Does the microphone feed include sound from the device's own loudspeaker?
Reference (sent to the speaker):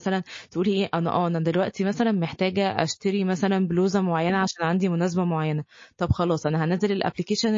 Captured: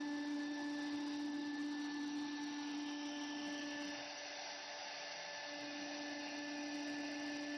No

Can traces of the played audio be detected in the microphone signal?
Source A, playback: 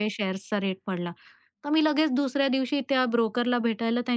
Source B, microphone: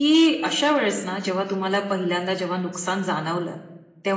No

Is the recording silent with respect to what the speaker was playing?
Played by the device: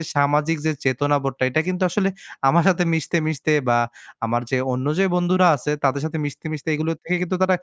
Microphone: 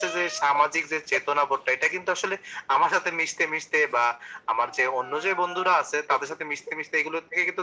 No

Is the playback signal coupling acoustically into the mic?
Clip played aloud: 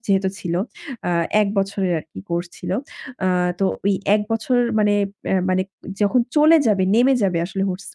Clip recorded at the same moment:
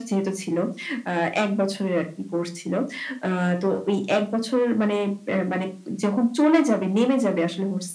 Yes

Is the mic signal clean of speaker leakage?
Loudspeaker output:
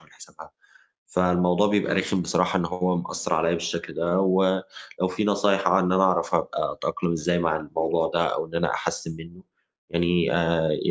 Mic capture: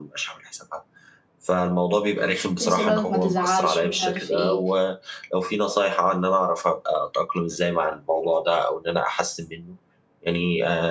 No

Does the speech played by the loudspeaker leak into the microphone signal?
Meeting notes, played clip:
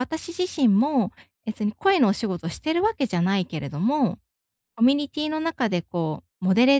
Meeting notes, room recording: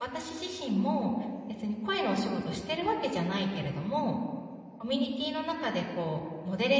Yes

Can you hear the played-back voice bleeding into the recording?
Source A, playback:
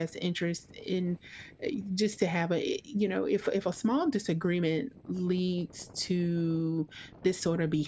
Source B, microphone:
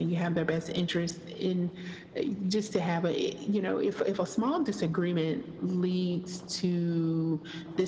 Yes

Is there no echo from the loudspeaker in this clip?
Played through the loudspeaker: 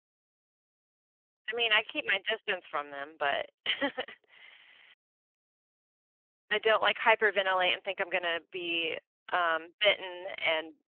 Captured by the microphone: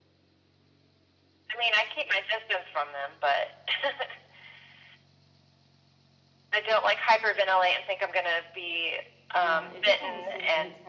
No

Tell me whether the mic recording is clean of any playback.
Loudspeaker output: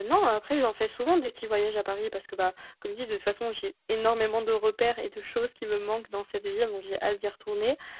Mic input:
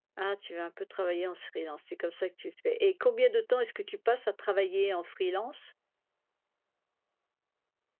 Yes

